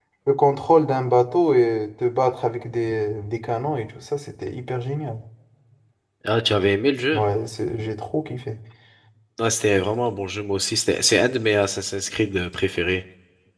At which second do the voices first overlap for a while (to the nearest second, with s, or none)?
none